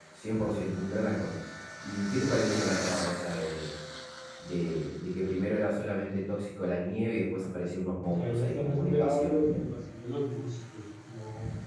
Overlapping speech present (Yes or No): Yes